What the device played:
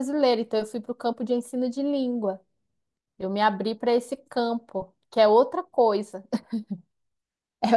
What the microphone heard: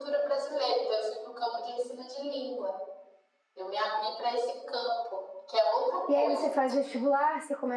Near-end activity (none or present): present